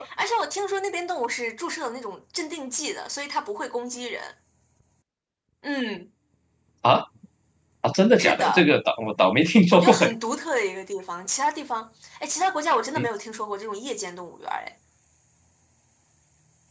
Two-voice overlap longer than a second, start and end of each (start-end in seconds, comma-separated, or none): none